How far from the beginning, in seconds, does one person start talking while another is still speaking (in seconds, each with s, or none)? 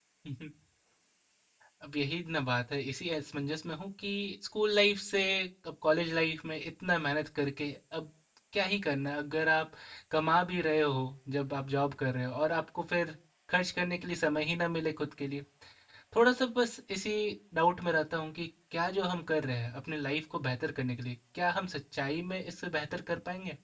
none